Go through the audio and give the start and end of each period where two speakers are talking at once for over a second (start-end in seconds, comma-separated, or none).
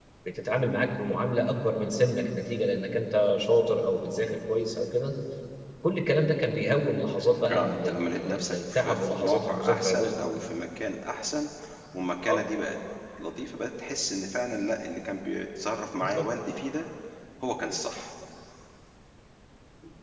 7.5-10.4